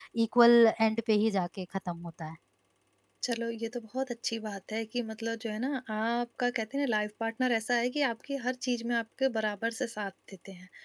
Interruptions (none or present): none